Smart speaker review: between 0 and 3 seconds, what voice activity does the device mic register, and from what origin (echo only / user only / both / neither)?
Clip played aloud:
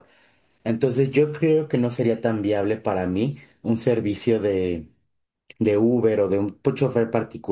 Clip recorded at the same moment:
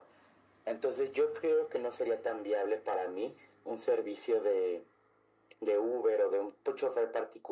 echo only